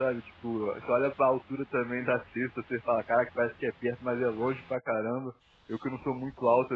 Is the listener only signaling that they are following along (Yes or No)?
Yes